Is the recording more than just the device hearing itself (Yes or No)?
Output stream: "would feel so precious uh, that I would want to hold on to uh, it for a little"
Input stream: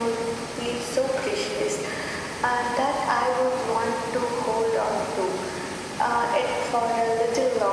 No